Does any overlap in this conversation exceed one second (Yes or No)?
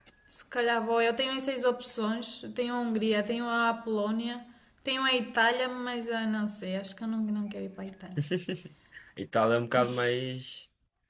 No